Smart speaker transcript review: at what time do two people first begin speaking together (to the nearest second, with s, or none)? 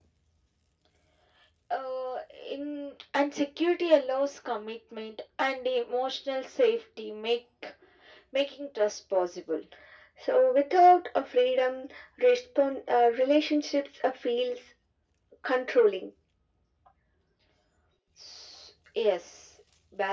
none